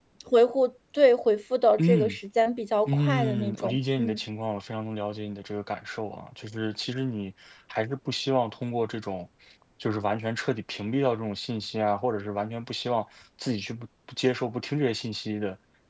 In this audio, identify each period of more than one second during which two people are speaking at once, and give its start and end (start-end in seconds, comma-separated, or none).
2.9-4.2